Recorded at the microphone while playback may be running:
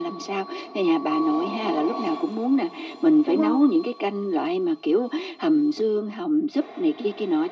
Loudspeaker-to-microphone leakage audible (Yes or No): Yes